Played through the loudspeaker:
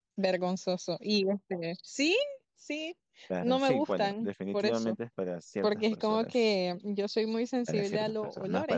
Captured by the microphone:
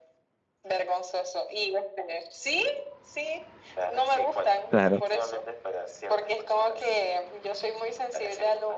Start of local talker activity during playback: 4.7 s

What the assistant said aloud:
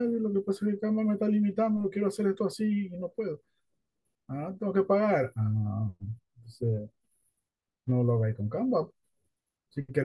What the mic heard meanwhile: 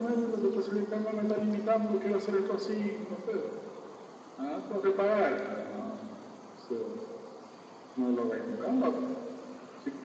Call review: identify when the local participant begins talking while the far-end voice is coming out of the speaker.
none

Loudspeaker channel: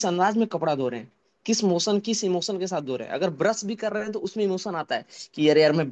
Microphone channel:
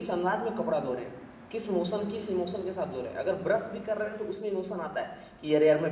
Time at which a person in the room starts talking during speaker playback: none

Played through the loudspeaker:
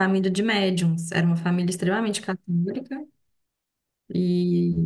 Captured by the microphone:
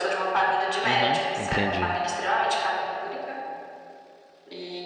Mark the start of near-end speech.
0.9 s

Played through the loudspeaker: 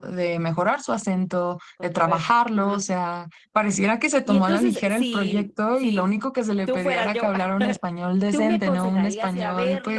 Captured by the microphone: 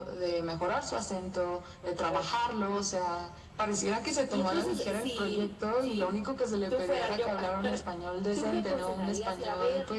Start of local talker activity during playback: none

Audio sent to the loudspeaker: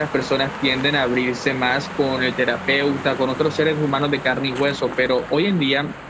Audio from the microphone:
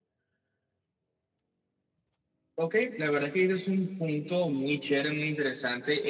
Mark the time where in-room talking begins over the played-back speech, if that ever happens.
2.6 s

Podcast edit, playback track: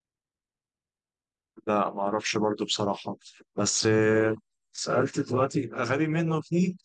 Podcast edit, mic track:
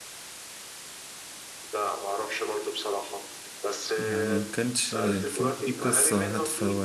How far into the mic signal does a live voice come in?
4.0 s

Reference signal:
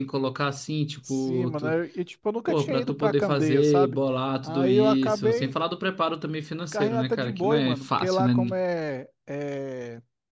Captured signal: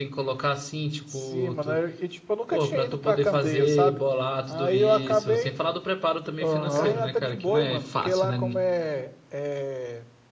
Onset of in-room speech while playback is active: 6.4 s

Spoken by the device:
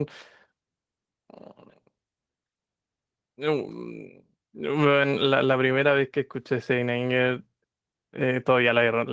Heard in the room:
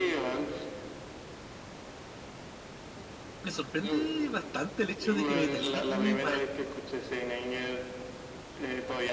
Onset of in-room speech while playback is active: 3.4 s

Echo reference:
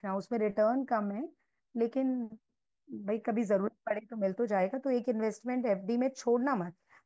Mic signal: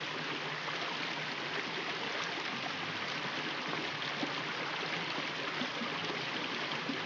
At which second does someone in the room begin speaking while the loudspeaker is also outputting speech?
none

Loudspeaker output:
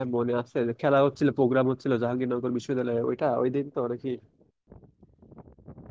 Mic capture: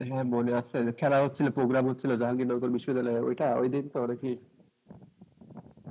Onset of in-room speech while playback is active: none

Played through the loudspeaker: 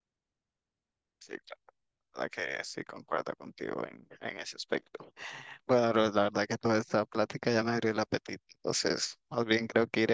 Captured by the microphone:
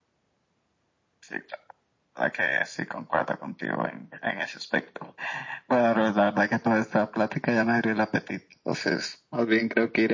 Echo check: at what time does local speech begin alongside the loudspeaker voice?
none

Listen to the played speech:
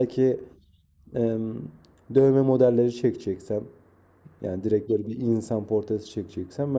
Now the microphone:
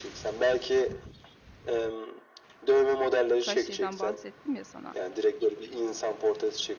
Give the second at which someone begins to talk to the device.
3.4 s

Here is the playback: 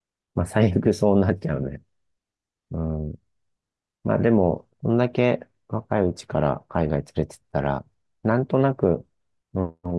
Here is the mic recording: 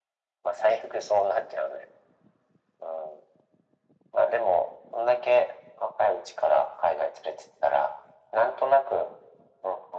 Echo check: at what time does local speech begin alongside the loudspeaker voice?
none

